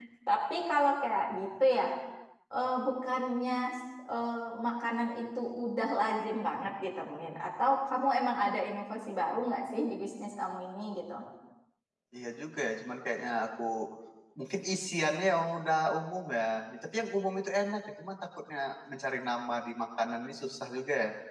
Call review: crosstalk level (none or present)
none